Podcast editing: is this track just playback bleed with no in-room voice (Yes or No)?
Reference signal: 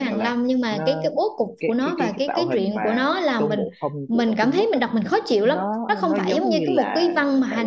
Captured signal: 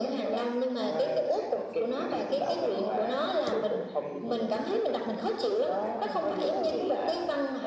No